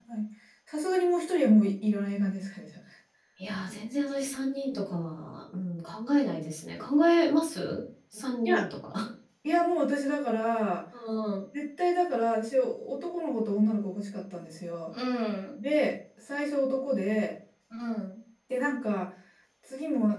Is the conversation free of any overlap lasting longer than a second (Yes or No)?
Yes